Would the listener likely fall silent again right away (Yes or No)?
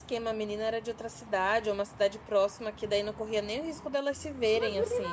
No